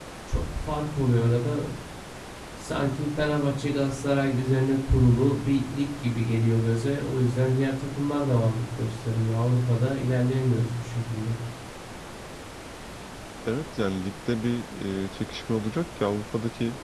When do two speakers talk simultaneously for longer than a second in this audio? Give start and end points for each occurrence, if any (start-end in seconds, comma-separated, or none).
none